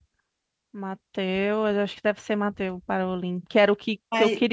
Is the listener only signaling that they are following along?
Yes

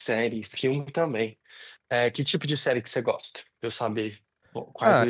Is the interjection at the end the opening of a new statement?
Yes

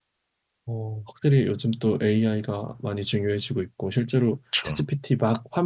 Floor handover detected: No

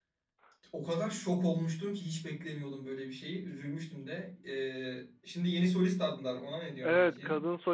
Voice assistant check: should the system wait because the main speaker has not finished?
No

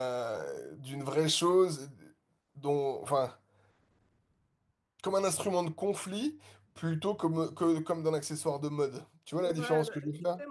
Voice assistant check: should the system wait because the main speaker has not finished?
No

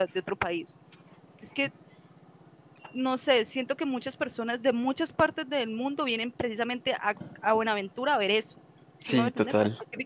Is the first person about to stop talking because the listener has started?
No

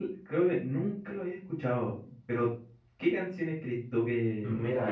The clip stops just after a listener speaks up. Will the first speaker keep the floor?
Yes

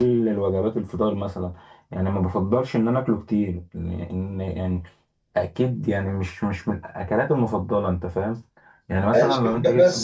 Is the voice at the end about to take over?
Yes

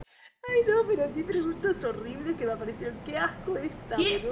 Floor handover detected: Yes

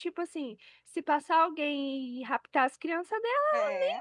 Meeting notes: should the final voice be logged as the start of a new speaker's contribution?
No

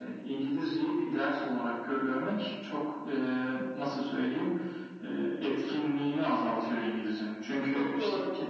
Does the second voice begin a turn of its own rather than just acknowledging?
No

